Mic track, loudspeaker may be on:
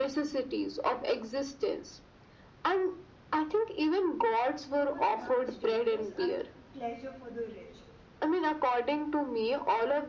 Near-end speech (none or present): present